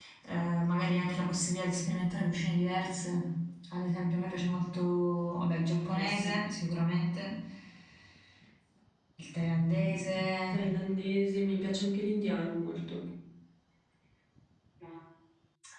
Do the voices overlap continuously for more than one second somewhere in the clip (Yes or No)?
No